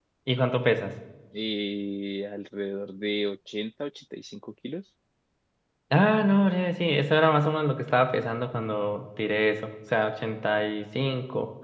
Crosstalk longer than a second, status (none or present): none